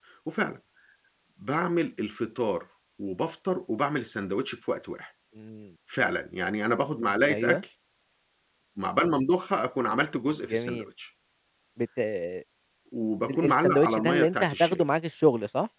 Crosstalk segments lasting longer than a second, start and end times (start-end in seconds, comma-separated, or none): 13.3-14.8